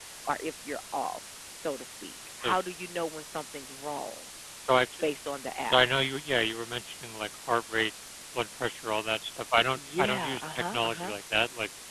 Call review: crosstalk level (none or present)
present